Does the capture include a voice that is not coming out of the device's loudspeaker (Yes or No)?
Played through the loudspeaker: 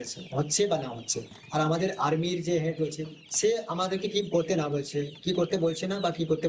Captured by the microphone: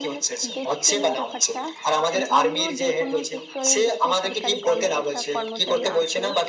Yes